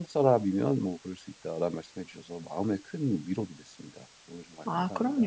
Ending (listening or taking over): taking over